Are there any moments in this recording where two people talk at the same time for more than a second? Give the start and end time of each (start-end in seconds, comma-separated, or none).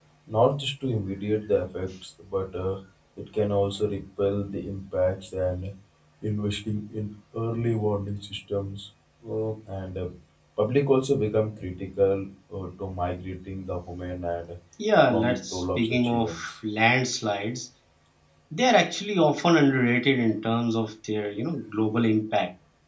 15.1-16.4